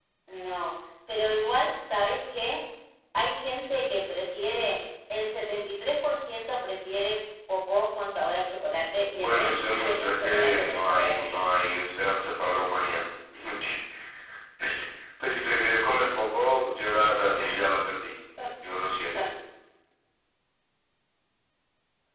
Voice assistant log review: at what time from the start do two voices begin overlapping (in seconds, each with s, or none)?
9.1 s